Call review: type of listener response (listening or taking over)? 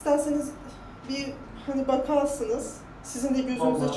listening